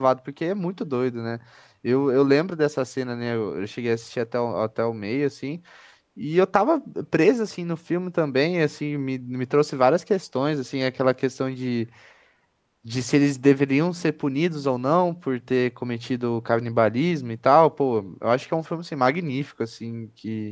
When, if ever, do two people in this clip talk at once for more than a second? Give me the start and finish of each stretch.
none

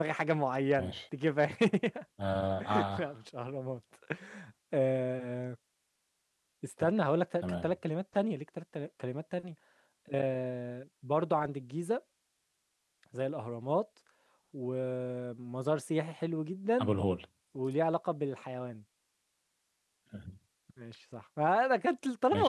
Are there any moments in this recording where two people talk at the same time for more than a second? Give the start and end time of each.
none

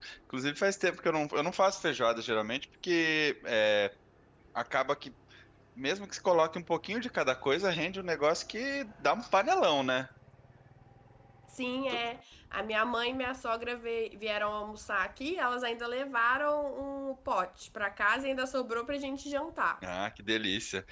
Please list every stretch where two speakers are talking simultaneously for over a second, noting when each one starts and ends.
none

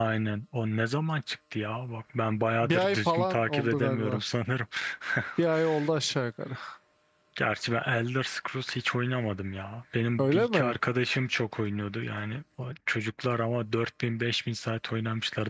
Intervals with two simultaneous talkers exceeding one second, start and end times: 2.6-4.2

